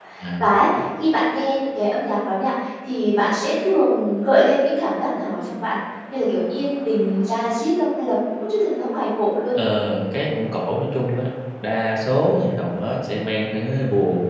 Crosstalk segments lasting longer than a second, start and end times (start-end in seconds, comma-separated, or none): none